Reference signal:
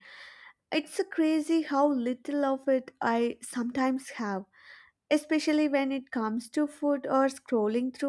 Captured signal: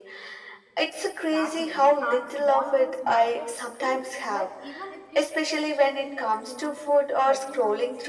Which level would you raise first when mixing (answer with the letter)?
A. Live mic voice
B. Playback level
A